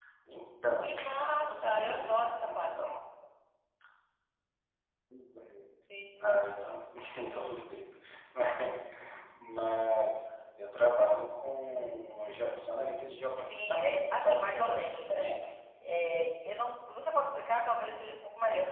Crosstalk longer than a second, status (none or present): present